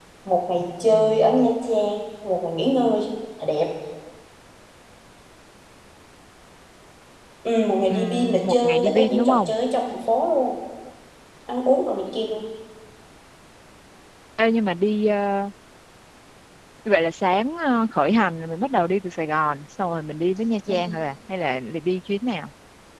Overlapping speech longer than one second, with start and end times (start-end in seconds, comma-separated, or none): 7.9-9.5